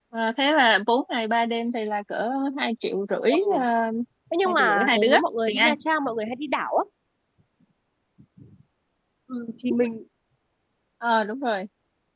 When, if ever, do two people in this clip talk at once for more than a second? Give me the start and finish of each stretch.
4.5-5.7

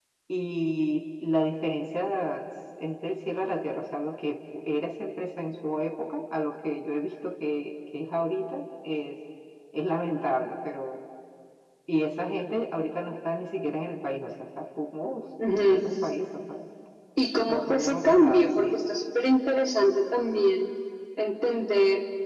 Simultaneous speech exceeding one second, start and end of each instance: 17.5-18.8

